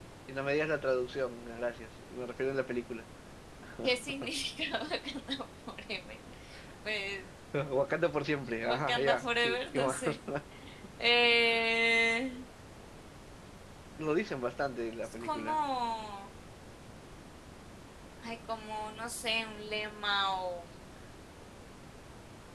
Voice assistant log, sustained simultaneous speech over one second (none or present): present